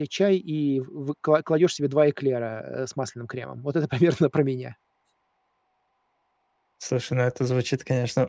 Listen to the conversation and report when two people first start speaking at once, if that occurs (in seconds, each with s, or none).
none